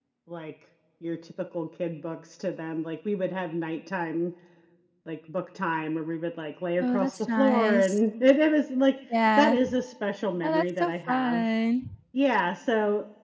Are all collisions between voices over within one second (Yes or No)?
No